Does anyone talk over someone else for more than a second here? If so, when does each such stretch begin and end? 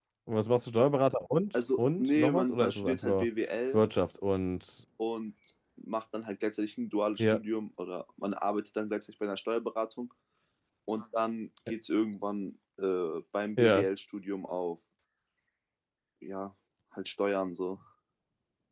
1.8-3.3

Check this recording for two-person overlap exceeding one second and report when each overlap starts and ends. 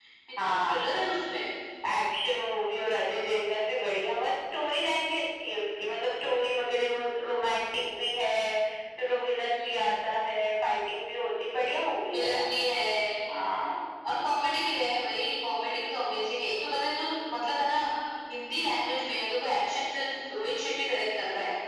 none

